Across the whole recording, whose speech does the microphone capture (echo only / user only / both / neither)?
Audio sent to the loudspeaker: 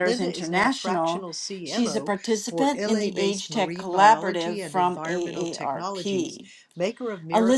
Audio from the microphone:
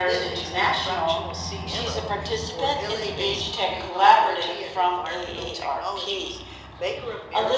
echo only